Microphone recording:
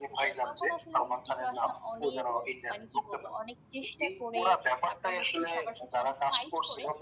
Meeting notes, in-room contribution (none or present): present